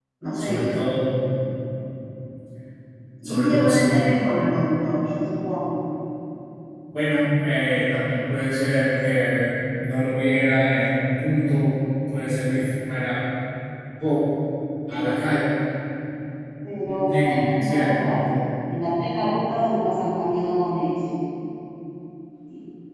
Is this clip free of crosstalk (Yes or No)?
No